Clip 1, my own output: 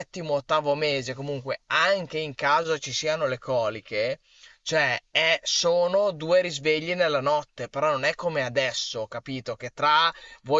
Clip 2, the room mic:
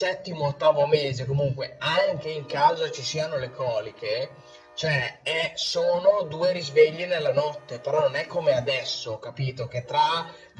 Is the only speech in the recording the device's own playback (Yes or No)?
Yes